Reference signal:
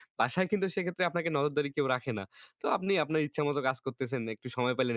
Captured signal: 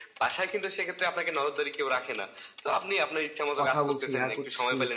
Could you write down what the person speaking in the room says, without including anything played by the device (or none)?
কথা বলছি, ইহা করছি,